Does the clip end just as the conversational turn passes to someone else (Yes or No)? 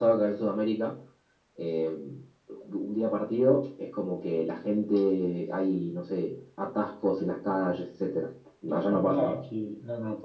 Yes